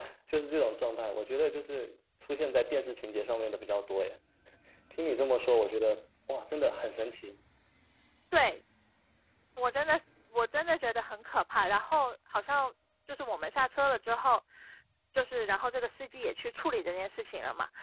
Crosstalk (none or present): none